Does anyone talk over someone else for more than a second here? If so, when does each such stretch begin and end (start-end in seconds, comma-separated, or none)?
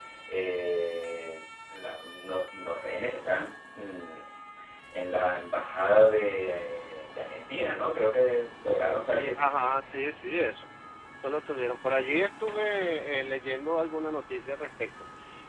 none